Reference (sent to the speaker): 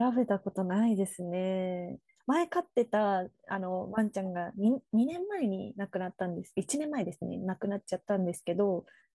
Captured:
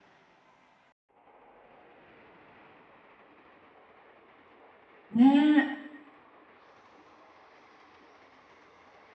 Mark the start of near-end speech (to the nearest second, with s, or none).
5 s